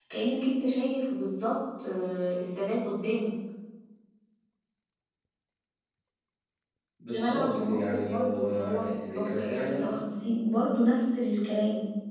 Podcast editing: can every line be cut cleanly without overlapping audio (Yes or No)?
No